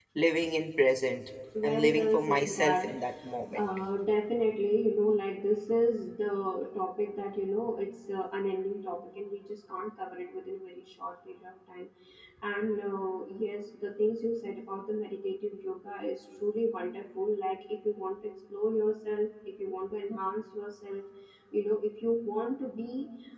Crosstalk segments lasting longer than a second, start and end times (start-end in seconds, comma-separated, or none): 1.6-3.0